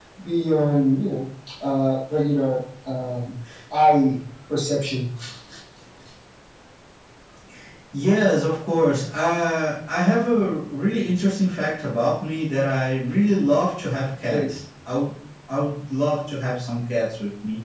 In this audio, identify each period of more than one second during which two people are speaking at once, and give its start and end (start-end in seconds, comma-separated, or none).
none